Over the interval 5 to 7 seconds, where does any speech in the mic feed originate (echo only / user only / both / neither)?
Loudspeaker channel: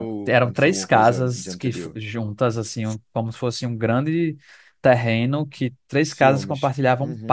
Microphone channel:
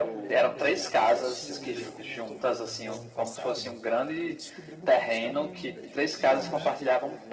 both